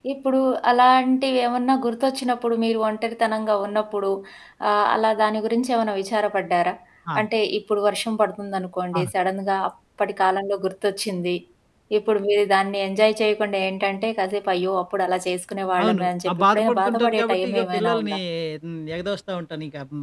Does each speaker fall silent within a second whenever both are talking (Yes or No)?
No